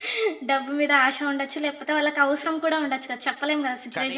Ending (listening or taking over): taking over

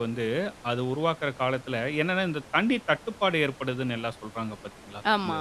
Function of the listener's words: listening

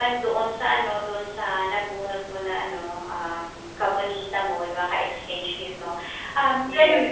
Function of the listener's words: listening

